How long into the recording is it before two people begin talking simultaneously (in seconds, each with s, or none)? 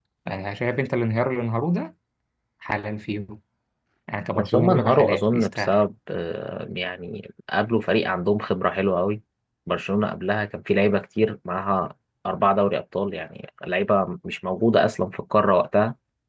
4.3 s